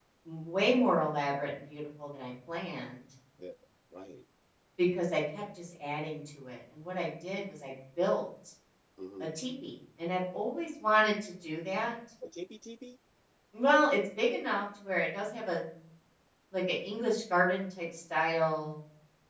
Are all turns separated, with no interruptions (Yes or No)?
Yes